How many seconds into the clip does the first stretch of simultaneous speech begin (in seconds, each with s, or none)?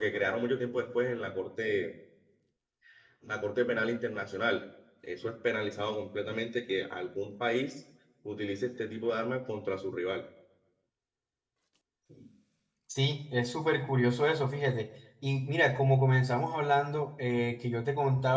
none